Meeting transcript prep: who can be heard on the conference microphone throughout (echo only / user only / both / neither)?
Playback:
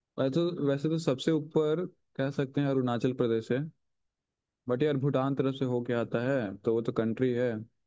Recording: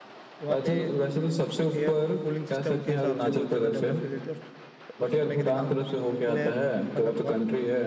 both